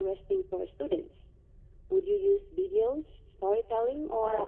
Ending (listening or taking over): taking over